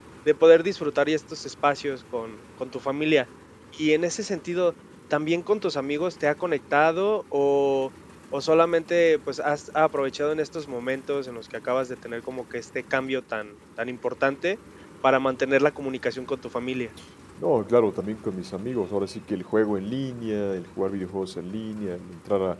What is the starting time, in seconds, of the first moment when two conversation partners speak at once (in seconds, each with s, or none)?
none